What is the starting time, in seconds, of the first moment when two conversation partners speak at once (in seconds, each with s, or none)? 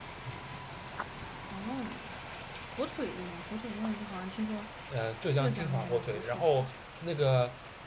5.3 s